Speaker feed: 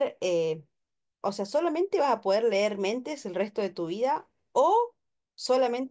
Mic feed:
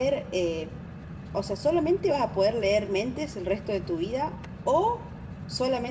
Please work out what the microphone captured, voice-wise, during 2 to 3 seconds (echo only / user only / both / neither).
echo only